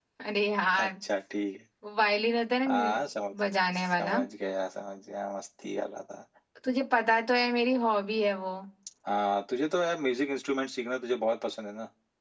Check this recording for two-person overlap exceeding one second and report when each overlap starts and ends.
none

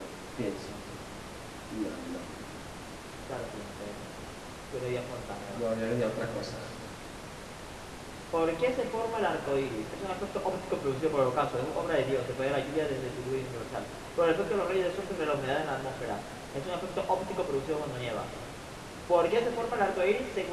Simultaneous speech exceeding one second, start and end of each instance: none

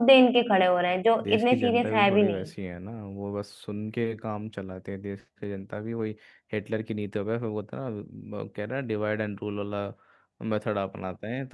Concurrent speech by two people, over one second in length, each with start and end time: 1.2-2.5

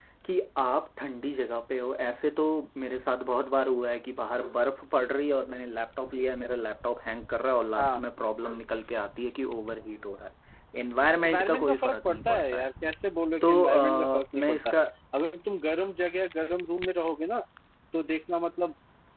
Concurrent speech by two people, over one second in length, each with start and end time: 11.2-12.7, 13.4-14.7

